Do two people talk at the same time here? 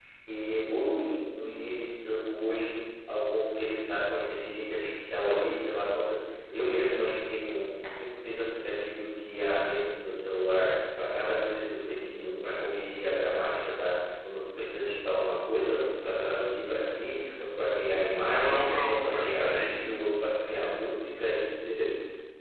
Yes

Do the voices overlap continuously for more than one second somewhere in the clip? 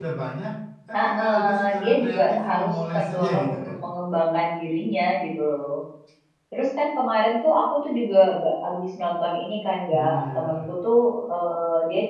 Yes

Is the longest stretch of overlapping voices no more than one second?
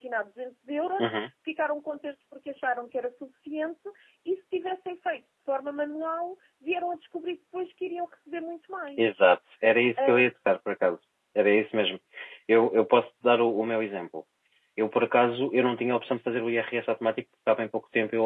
Yes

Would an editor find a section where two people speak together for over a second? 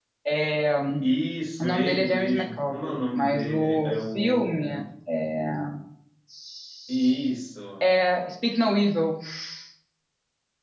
Yes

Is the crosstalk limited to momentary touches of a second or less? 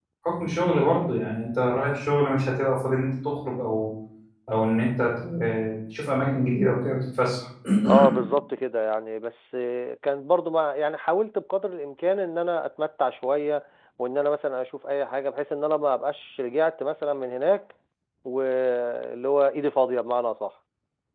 Yes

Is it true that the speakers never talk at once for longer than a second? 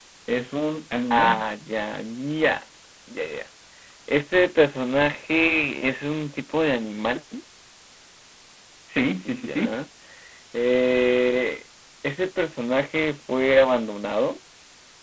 Yes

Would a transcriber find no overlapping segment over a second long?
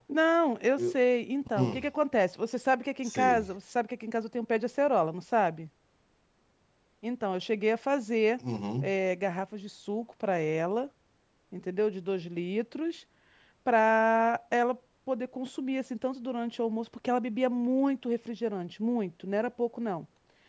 Yes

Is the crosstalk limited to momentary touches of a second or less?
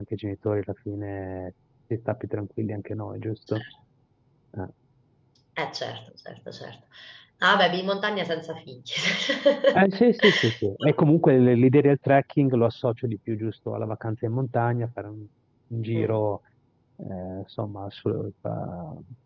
Yes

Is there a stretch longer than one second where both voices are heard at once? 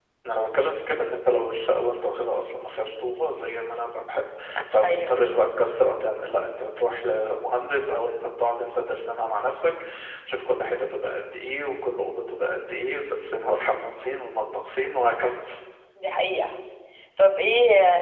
No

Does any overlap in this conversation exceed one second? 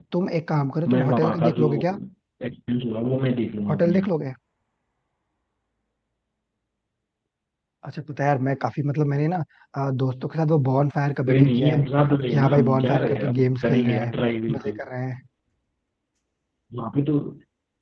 Yes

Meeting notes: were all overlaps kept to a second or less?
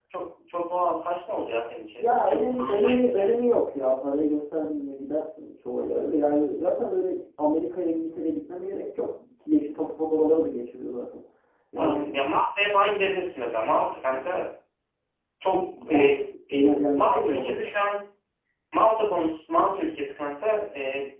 No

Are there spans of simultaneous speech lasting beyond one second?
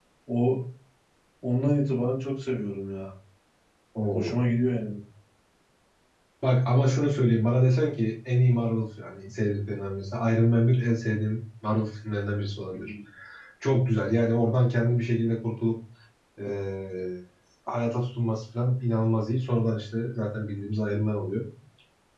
No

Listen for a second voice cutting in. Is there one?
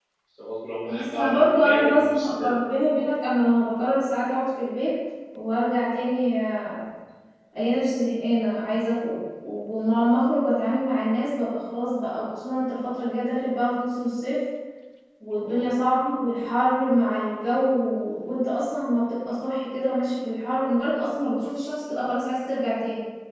Yes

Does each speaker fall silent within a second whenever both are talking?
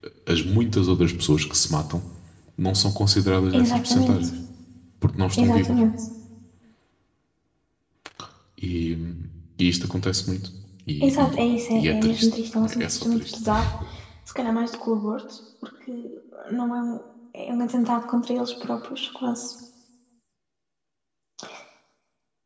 No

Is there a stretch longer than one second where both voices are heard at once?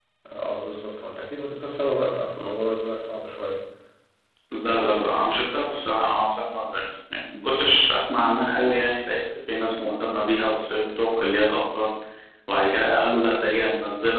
No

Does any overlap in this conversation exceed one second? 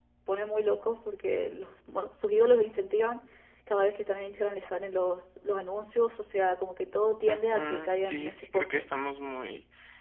Yes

